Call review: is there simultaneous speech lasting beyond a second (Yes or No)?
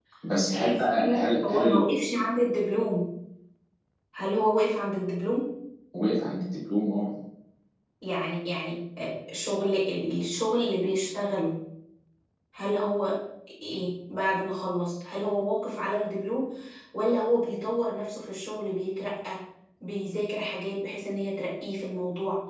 Yes